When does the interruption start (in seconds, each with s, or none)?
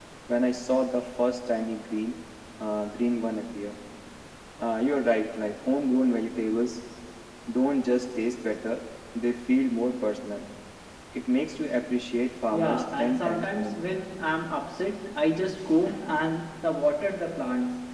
12.5 s